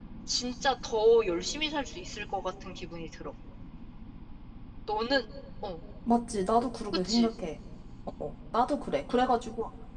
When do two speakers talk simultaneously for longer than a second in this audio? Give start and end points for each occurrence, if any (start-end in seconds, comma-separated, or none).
none